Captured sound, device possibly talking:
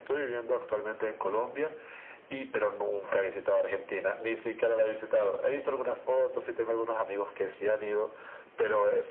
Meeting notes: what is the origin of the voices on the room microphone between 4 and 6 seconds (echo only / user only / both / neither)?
echo only